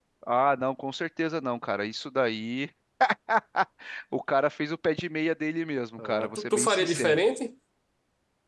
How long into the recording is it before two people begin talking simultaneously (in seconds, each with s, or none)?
6.0 s